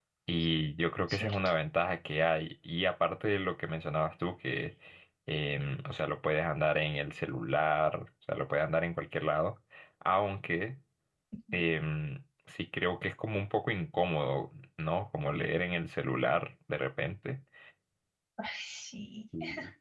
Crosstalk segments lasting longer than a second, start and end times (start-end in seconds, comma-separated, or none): none